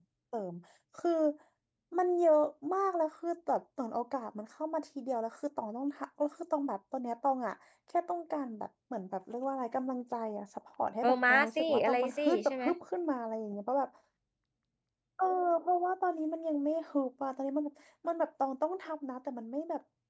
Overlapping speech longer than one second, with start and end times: 11.0-12.6

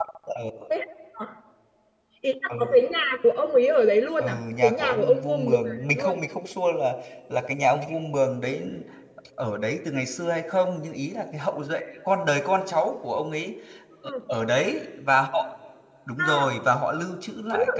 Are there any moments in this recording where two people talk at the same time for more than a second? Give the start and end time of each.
4.2-6.2

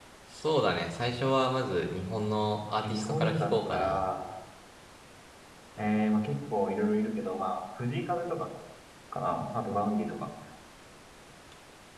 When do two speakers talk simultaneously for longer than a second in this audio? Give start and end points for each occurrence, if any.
2.8-4.0

